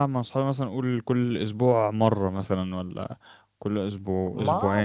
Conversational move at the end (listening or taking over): taking over